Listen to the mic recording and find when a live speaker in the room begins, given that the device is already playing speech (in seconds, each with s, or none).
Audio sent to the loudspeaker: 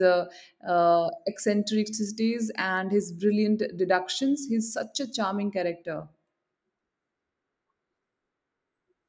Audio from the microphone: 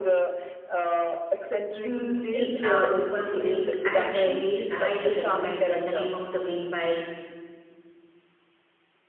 1.8 s